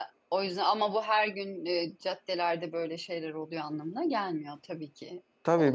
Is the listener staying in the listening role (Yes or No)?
No